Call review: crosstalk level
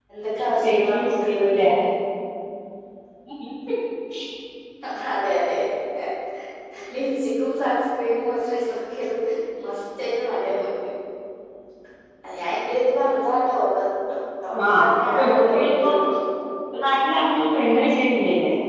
present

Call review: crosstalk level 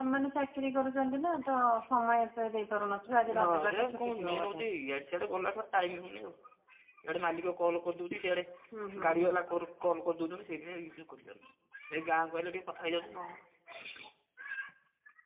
present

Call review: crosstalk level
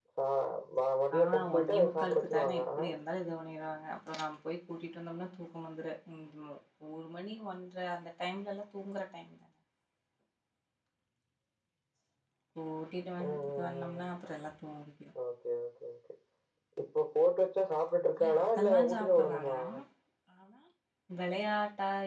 present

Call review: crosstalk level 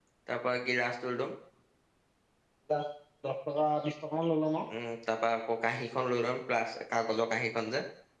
none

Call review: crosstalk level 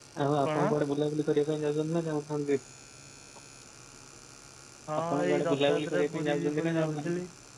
present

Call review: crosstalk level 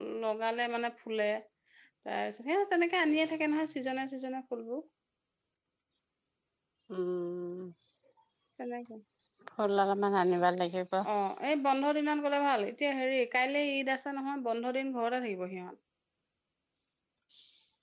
none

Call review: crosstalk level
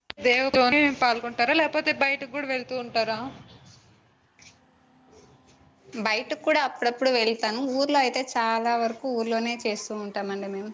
none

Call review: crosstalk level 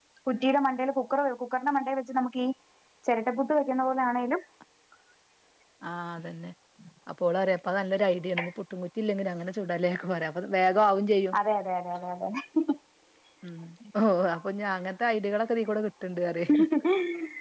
none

